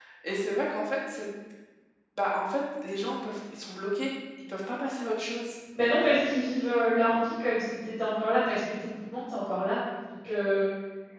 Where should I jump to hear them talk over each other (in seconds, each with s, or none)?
none